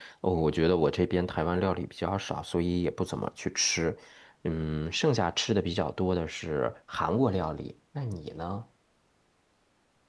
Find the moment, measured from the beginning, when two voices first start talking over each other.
none

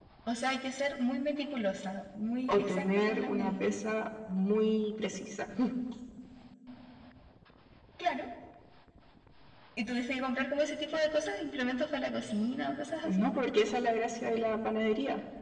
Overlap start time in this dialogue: 2.5 s

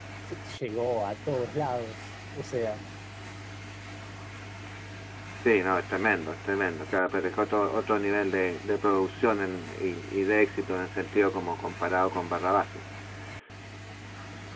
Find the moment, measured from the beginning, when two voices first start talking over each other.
none

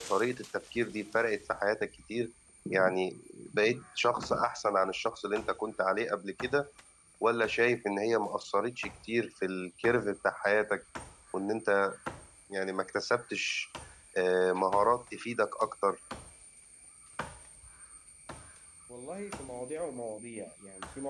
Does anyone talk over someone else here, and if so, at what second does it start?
none

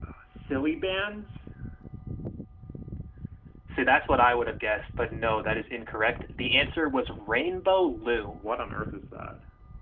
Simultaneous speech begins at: none

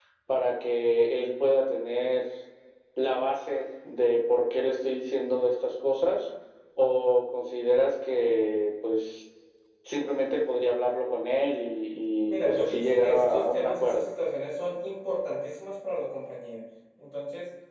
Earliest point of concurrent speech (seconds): 12.3 s

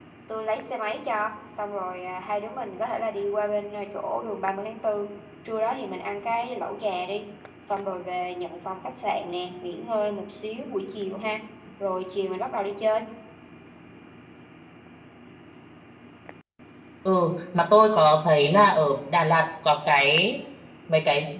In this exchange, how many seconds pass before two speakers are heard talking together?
none

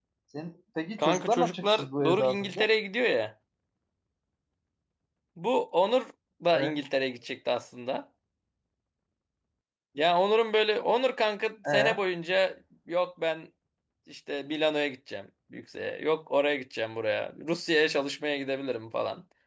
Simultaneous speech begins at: 1.0 s

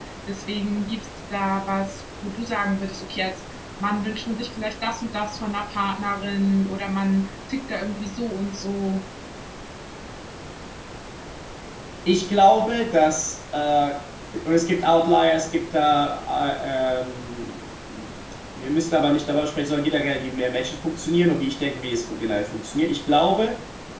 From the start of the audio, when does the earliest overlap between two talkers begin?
none

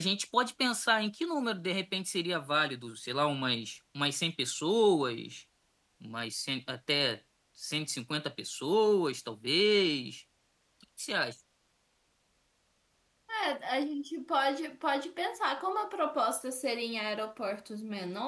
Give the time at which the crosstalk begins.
none

